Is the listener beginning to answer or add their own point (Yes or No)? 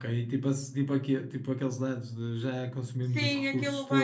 Yes